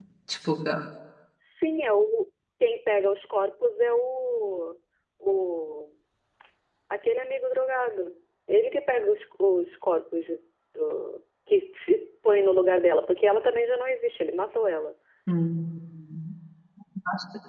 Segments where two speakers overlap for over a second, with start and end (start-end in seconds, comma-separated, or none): none